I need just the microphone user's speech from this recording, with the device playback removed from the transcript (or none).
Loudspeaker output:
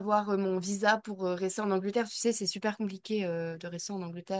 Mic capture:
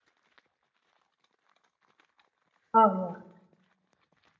Ah, rien.